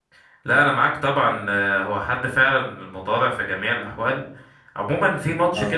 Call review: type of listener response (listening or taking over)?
listening